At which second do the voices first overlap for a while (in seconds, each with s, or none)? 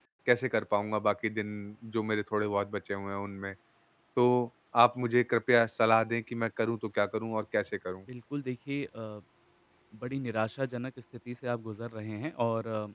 none